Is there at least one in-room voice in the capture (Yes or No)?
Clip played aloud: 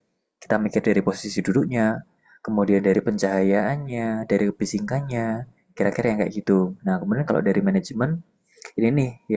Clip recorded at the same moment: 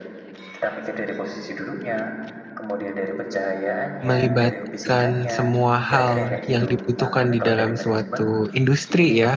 Yes